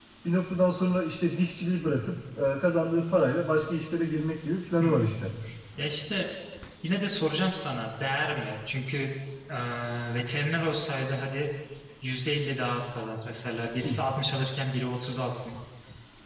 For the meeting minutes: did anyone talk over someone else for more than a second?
No

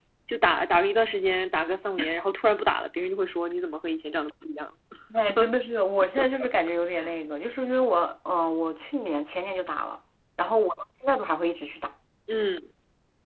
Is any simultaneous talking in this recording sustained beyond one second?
No

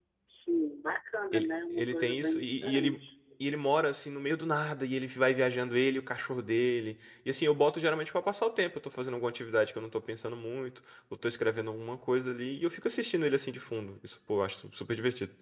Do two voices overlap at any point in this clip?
Yes, from 1.3 s

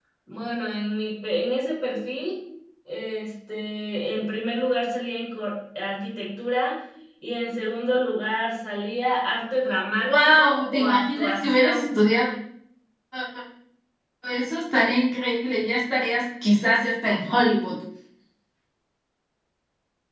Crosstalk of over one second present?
Yes, from 10.0 s

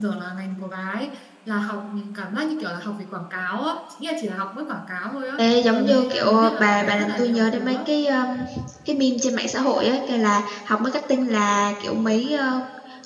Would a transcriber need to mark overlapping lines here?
Yes, from 5.4 s

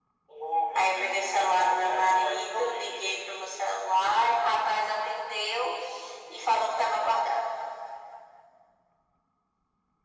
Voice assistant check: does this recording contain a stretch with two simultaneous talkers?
Yes, from 0.8 s

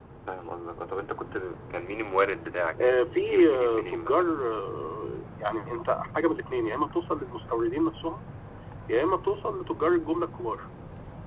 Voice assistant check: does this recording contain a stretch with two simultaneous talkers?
Yes, from 2.8 s

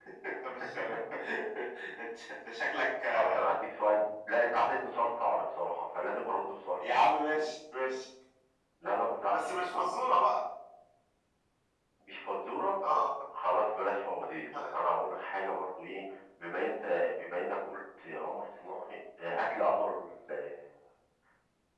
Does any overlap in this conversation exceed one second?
No

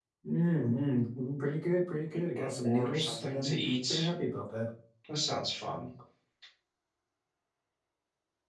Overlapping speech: Yes, from 2.3 s

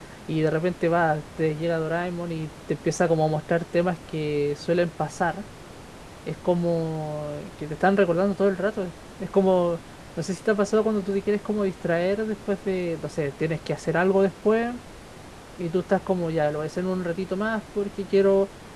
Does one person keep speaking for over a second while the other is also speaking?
No

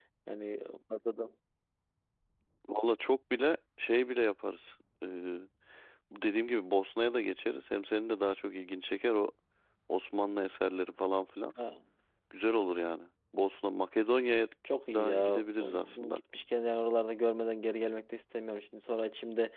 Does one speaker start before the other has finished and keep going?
Yes, from 14.9 s

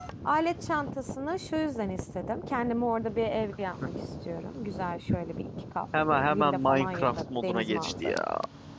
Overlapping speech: Yes, from 6.1 s

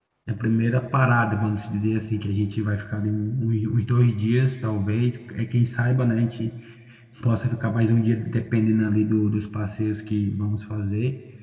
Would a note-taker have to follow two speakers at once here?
No

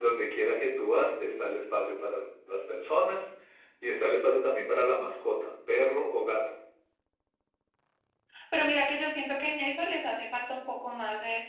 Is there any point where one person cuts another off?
No

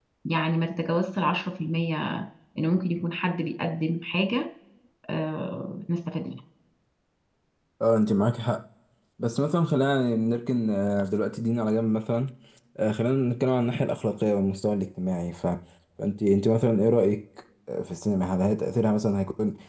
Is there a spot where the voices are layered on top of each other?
No

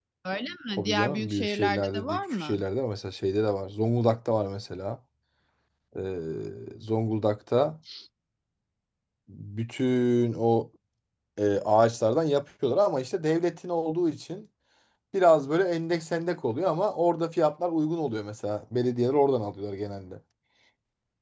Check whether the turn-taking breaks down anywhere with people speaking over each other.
Yes, from 0.8 s

